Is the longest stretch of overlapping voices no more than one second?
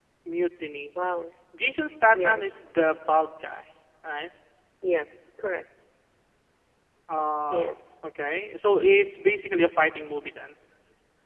Yes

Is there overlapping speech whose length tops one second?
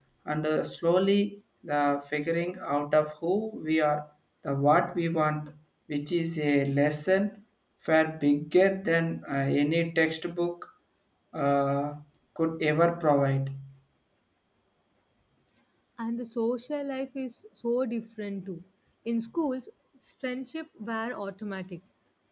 No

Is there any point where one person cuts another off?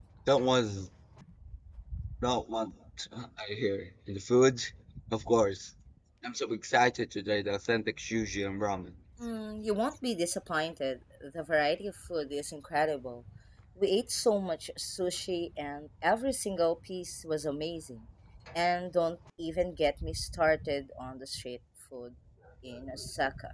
No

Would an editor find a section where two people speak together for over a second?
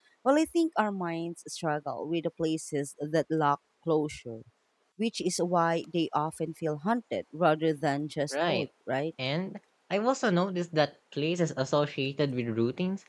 No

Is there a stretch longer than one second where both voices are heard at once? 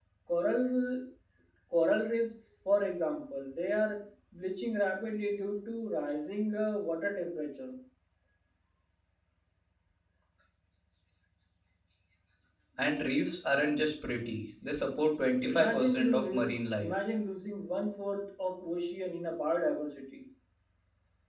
Yes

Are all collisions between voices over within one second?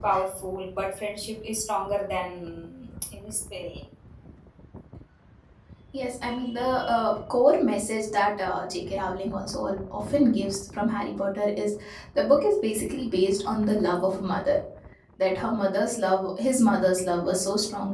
Yes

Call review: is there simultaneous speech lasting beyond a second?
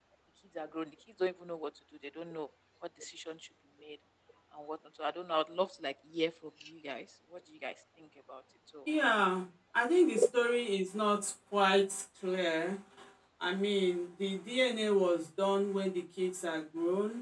No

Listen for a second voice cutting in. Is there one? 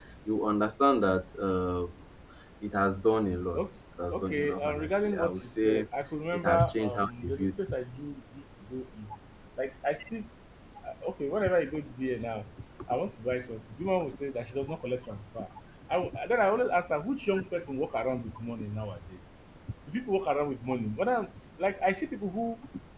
Yes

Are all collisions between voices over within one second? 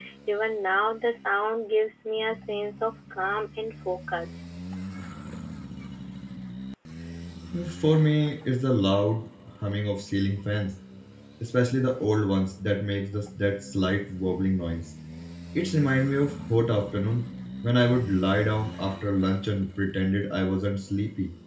Yes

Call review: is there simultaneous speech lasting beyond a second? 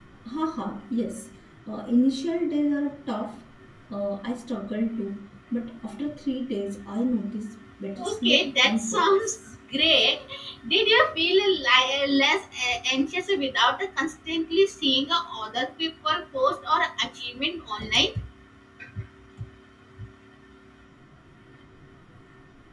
Yes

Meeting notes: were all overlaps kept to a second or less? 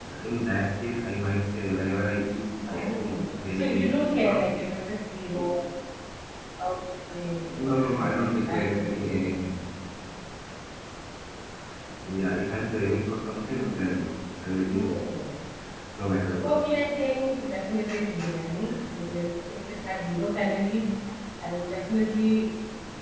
No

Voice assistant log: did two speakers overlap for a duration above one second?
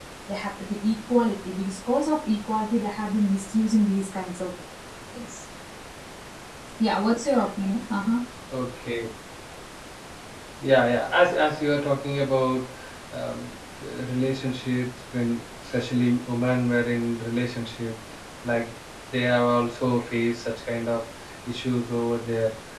No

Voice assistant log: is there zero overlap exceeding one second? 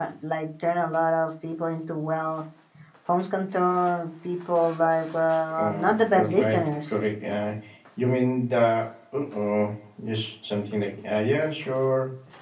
No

